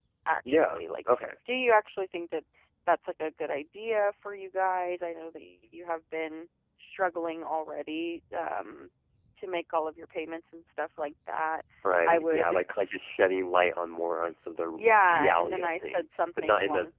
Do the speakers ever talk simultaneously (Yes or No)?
Yes